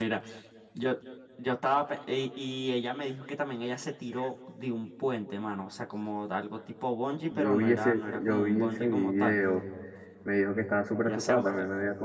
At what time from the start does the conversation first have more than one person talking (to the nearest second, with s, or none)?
7 s